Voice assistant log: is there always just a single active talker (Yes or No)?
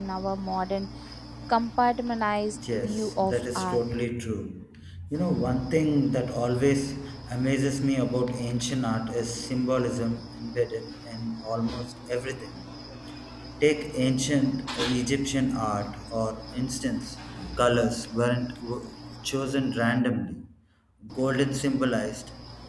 No